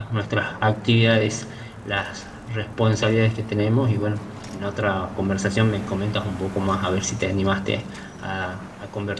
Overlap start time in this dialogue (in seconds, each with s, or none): none